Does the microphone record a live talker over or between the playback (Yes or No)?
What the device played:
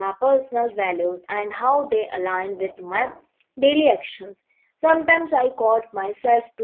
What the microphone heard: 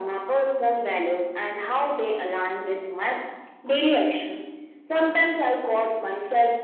No